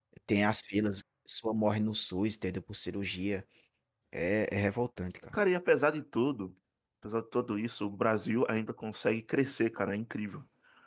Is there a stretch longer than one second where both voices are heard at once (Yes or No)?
No